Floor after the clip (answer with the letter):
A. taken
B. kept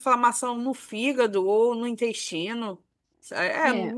B